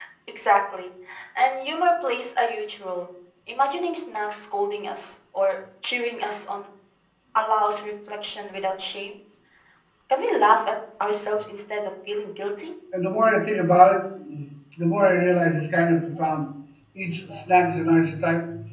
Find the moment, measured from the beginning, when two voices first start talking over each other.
none

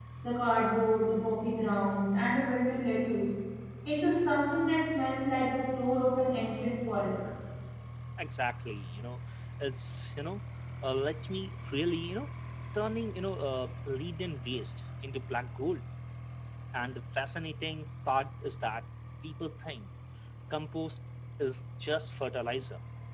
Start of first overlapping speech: none

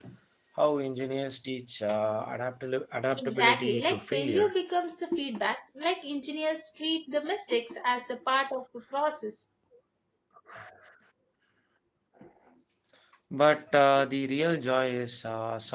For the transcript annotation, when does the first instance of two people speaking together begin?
3.1 s

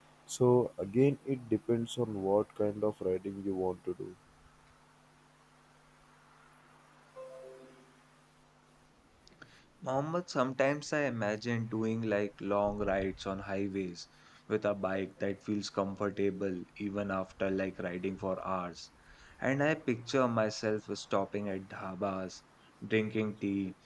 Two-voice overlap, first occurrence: none

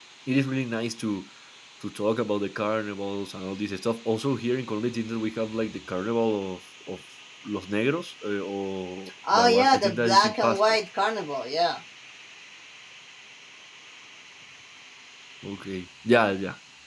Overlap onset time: 9.2 s

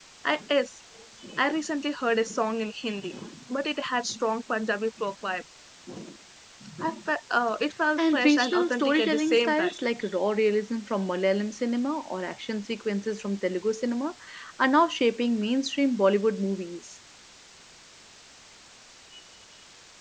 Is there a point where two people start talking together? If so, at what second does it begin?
8.0 s

